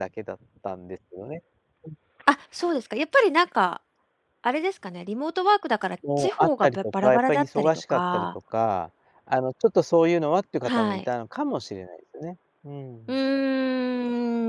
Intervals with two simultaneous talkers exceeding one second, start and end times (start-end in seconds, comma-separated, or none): 6.2-8.3